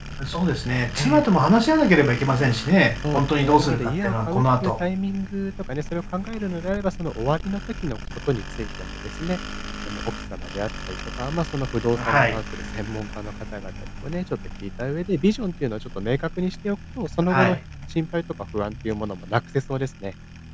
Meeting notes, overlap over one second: present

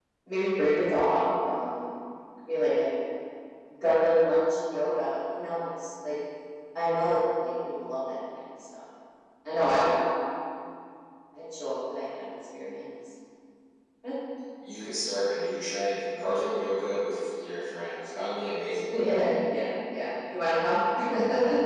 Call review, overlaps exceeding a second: none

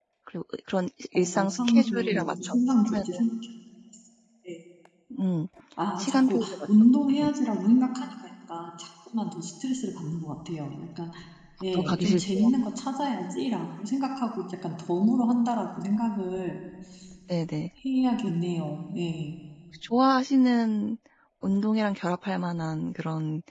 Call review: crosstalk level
present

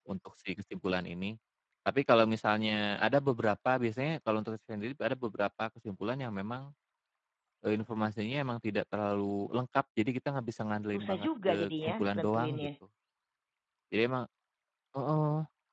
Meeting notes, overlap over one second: present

